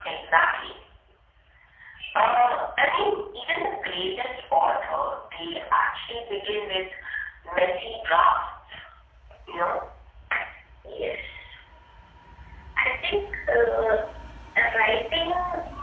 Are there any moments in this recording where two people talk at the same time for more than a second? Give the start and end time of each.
none

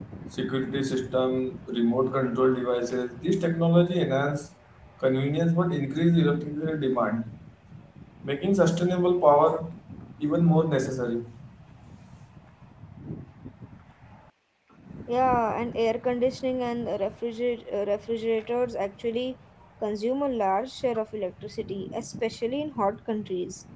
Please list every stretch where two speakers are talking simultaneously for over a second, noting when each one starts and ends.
none

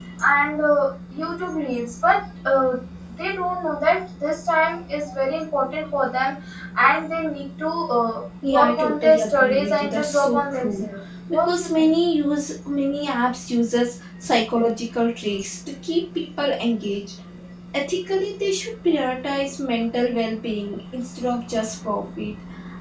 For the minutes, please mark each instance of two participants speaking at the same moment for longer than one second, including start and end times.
8.4-10.8

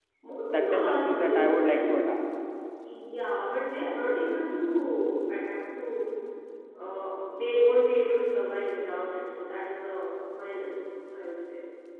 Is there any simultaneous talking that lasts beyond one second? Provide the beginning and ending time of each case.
0.6-2.0

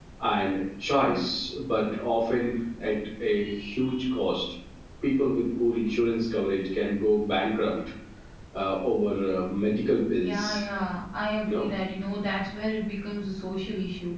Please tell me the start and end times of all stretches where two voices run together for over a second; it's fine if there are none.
none

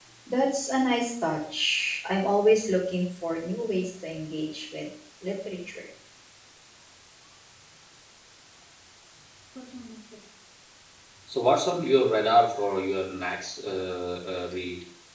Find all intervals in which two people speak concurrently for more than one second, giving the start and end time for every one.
none

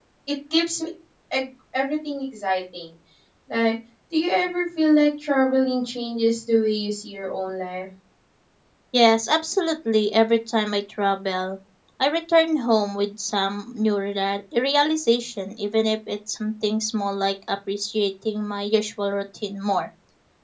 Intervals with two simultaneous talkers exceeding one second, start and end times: none

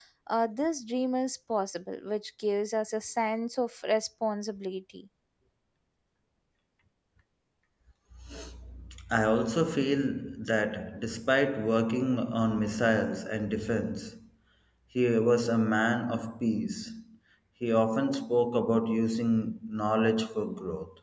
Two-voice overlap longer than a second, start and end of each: none

